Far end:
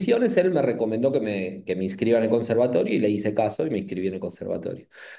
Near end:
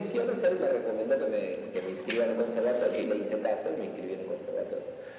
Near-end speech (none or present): none